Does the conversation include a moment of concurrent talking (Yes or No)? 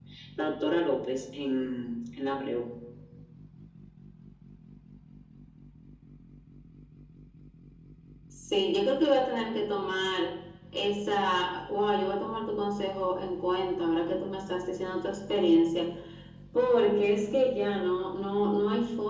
No